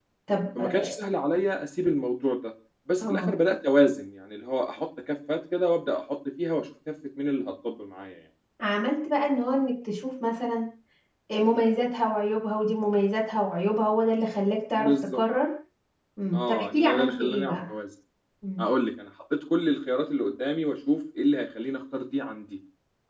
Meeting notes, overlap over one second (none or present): present